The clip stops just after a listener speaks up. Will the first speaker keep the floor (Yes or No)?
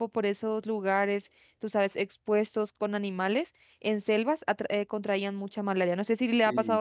No